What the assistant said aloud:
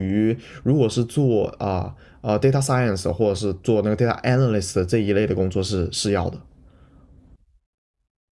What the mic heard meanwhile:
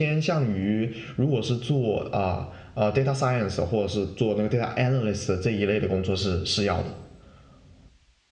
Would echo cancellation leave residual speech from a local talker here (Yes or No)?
No